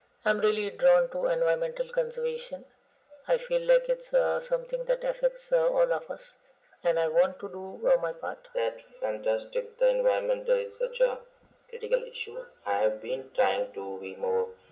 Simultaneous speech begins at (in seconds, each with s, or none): none